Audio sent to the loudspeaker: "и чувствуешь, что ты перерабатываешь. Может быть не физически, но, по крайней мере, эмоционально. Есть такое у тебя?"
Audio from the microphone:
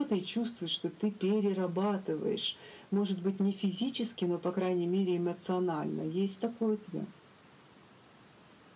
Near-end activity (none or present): none